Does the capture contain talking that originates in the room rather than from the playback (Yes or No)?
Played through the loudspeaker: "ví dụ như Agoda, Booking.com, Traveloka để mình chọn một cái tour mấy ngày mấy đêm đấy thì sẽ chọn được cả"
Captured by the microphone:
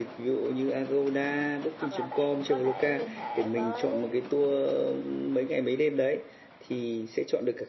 Yes